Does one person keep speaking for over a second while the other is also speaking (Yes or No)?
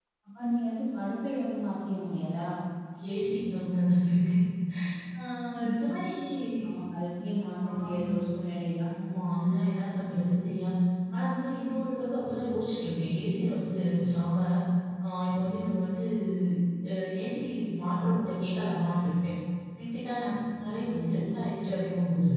No